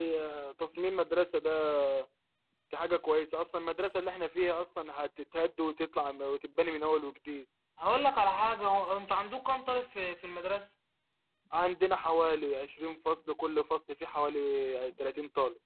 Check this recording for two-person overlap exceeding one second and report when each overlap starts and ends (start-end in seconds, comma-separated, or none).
none